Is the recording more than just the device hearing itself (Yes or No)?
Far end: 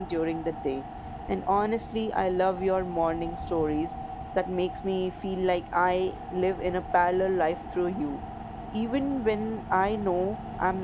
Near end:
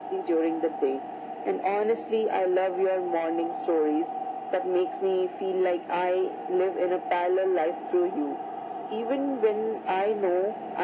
No